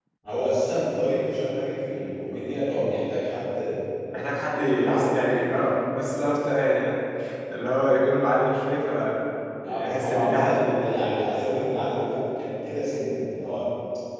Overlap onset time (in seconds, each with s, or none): 4.5 s